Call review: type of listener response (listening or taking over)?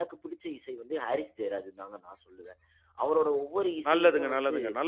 taking over